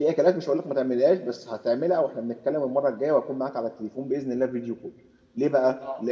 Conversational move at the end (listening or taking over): listening